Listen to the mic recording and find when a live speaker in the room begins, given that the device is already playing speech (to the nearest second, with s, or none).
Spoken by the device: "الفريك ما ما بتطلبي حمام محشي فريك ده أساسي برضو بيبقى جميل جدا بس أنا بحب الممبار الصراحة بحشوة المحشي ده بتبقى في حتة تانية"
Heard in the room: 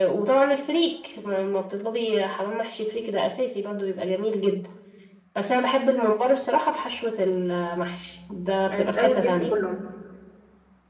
9 s